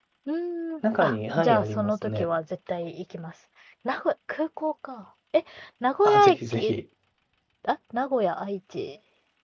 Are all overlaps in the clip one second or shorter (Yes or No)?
No